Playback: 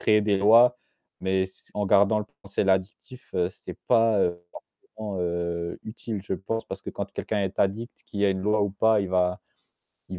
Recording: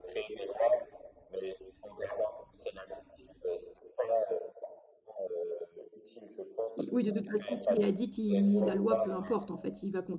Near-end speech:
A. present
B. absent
A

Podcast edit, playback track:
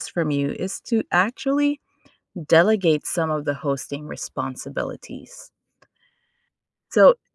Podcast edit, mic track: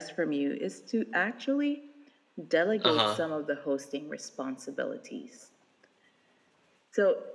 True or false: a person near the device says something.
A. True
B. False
A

